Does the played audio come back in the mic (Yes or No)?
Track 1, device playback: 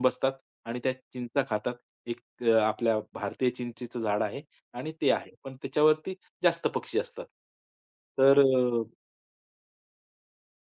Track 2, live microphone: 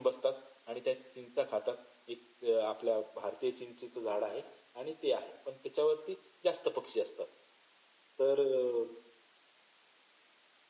Yes